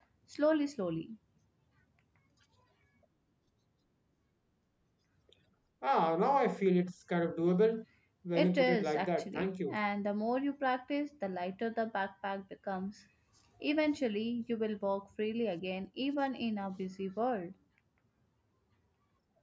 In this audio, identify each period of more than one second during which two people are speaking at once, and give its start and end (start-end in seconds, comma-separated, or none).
8.3-9.8